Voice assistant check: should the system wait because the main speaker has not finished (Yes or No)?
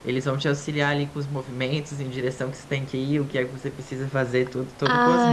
No